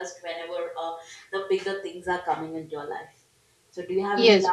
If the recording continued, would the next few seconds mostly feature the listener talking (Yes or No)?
Yes